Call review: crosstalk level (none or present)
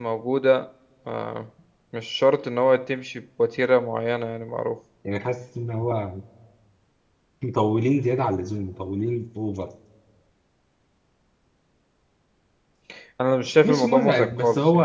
present